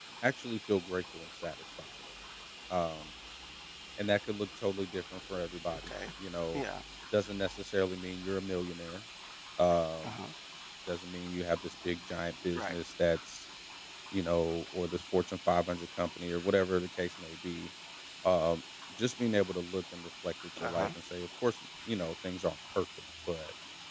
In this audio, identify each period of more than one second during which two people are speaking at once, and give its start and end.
none

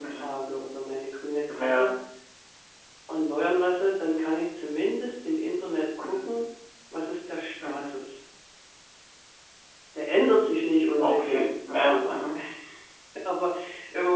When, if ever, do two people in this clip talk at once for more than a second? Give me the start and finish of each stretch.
11.0-12.2

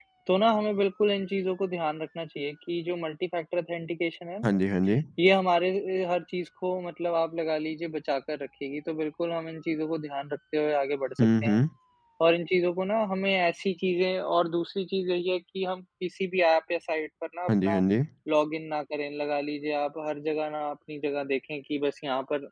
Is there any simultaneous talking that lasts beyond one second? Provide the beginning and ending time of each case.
none

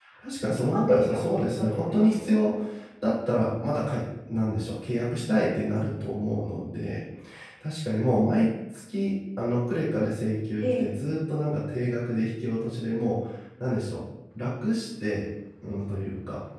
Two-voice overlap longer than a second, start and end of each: 0.7-2.5

